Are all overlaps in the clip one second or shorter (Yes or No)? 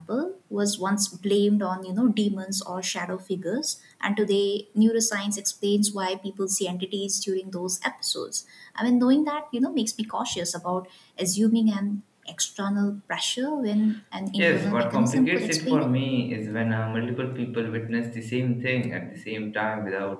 No